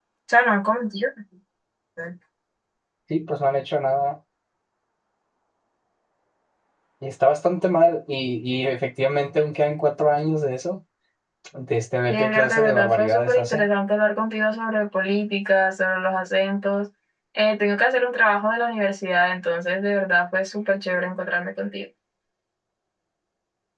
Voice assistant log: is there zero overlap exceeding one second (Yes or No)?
No